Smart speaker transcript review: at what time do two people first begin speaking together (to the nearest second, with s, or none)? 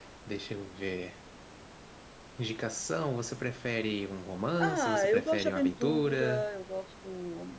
5 s